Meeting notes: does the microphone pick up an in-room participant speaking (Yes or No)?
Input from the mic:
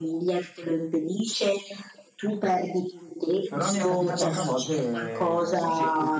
Yes